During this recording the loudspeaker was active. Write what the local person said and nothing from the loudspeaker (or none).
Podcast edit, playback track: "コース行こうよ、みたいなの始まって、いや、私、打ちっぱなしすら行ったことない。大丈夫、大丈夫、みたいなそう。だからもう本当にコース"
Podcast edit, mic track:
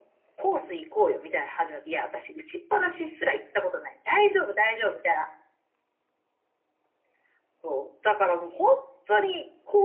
none